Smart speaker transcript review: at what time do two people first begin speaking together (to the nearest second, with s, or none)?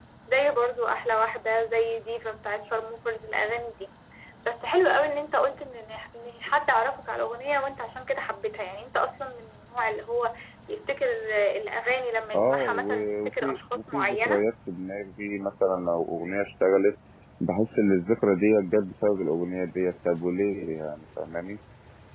12 s